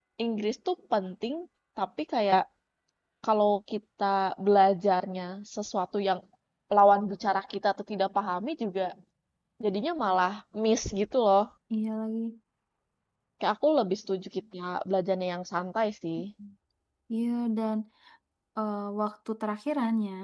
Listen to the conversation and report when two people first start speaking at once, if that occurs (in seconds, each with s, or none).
none